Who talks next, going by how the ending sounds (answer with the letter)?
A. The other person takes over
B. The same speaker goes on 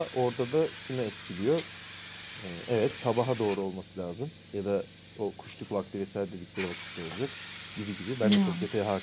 B